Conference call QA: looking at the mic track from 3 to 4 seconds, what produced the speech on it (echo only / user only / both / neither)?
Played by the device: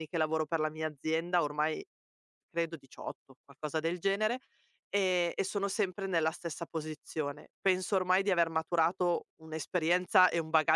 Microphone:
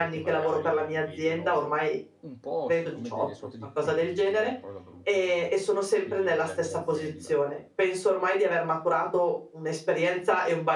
both